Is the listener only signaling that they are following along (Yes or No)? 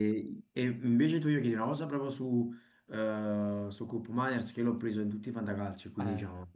No